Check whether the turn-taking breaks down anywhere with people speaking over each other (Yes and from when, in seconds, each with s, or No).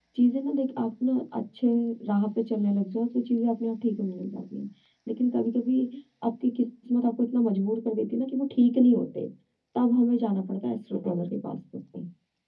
No